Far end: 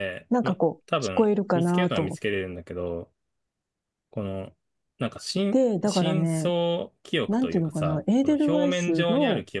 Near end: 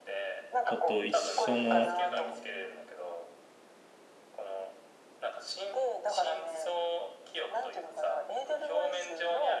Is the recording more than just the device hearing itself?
Yes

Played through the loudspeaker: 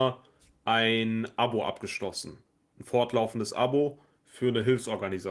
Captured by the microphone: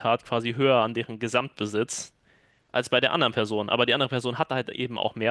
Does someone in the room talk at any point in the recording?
Yes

